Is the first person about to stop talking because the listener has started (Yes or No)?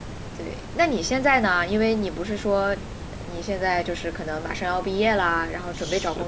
Yes